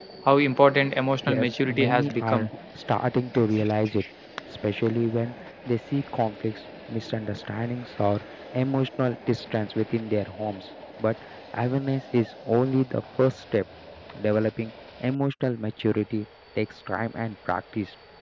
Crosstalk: present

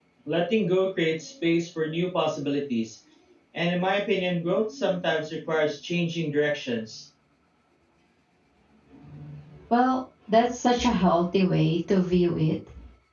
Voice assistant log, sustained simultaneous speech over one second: none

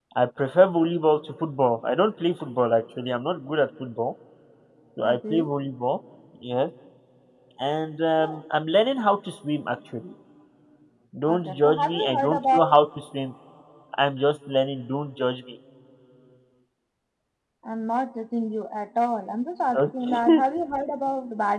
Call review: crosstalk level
present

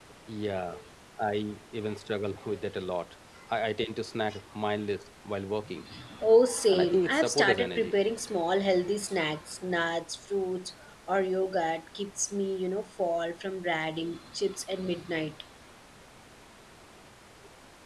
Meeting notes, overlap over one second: present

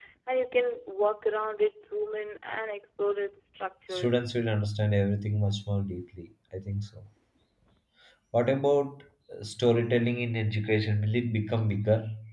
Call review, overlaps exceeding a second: none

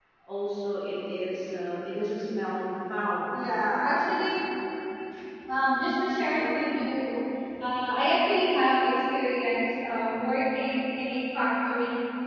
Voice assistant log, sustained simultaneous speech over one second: none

